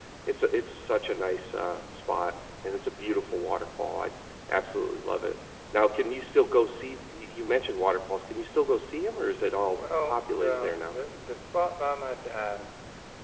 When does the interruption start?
9.7 s

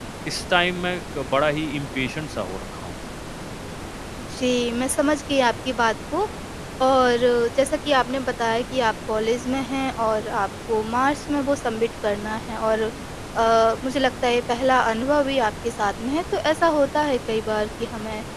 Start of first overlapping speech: none

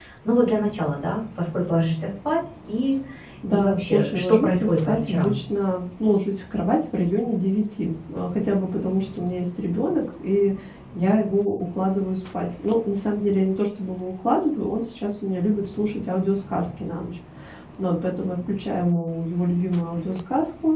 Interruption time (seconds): 3.5 s

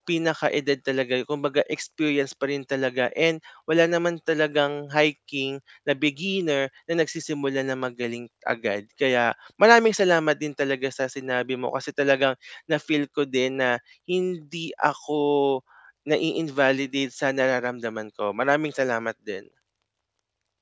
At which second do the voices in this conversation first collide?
none

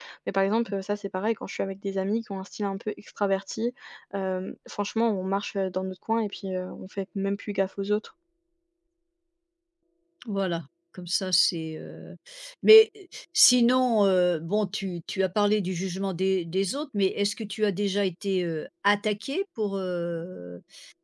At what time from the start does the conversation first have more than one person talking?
none

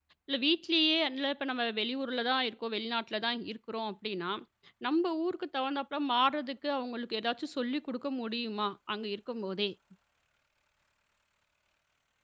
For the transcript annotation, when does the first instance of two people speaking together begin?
none

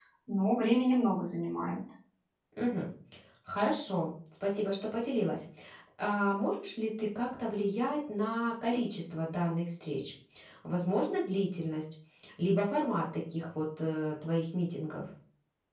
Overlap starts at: none

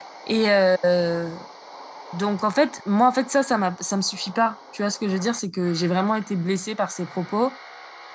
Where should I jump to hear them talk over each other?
none

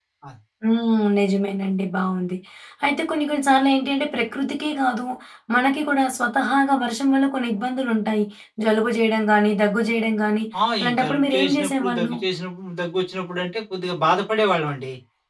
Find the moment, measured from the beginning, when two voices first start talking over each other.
10.8 s

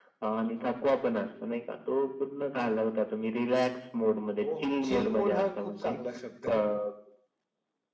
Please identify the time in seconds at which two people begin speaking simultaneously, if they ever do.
4.4 s

